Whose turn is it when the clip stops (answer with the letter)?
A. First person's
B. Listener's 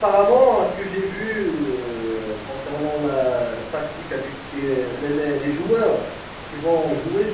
A